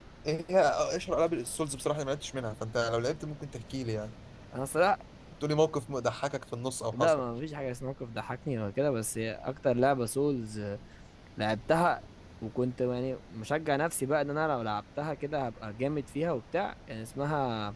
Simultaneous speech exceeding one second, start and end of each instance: none

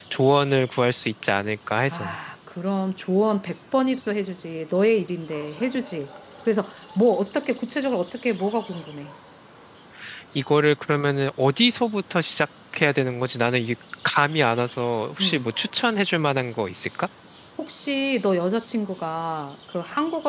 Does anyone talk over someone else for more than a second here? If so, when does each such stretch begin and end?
none

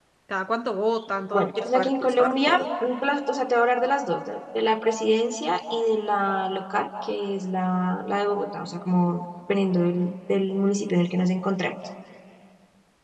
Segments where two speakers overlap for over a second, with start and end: 1.3-2.6

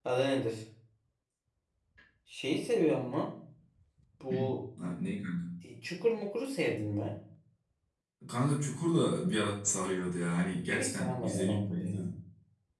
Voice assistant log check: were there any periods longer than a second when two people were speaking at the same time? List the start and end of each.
10.7-12.1

